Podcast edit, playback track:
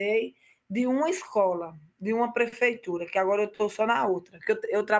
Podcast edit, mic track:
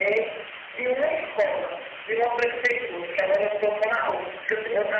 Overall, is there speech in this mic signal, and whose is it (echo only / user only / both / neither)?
echo only